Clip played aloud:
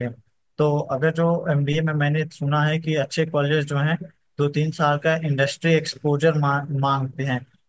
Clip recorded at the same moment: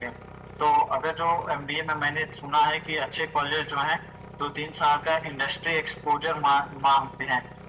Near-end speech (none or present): none